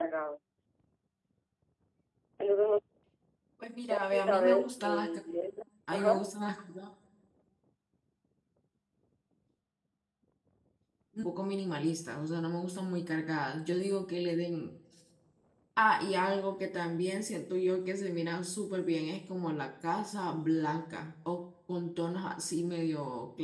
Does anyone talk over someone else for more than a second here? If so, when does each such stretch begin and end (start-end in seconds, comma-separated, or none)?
3.9-5.2